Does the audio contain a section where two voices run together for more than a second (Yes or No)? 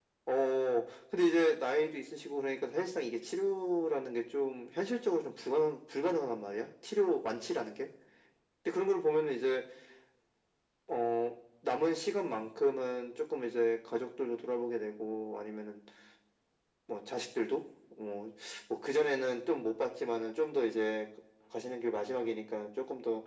No